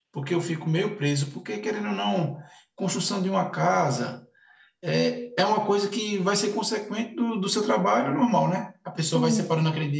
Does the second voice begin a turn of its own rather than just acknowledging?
No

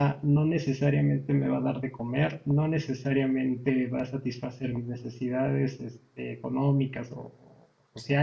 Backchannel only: Yes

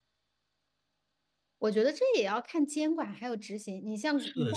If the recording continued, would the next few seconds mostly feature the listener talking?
Yes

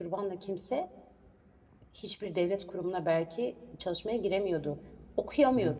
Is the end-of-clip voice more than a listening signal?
No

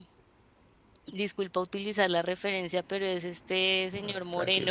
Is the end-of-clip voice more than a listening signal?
No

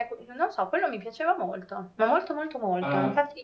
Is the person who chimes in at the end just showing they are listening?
No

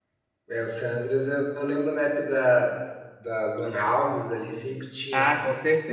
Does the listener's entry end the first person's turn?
Yes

